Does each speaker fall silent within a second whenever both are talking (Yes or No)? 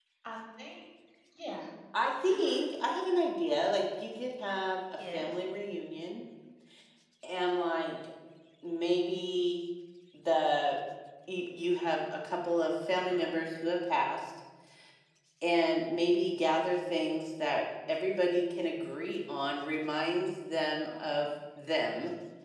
Yes